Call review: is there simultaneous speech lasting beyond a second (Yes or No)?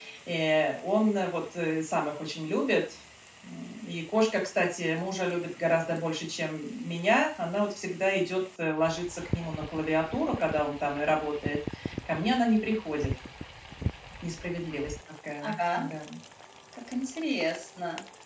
No